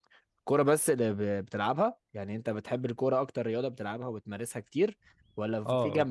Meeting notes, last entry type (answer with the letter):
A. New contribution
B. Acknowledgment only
B